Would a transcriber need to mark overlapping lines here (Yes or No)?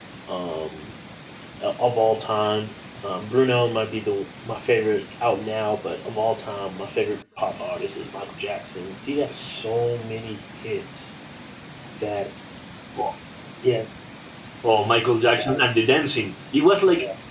No